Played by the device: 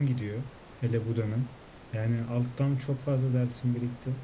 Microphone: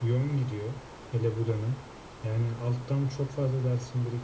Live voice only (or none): none